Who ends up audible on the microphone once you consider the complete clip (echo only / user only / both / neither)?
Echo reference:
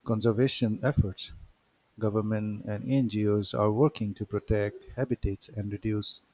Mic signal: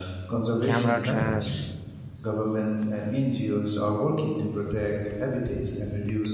both